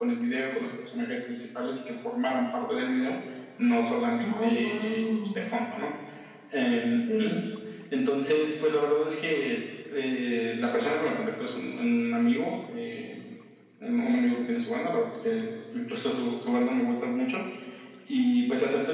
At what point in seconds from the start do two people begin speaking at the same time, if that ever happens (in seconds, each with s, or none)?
4.2 s